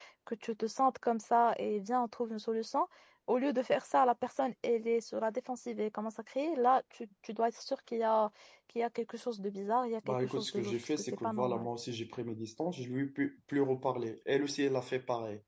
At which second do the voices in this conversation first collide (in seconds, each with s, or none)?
10.0 s